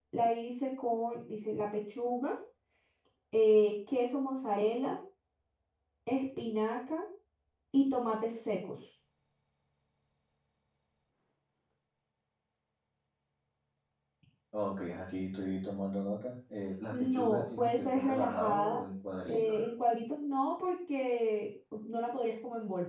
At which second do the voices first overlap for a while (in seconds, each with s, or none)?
16.9 s